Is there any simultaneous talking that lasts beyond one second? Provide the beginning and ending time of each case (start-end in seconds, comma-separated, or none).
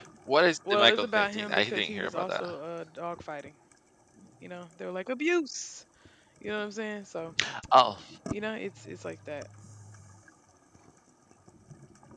0.7-2.5